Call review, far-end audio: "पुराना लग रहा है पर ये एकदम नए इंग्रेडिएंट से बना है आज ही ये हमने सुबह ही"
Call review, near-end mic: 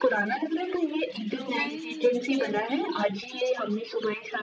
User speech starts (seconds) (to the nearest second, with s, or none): 1 s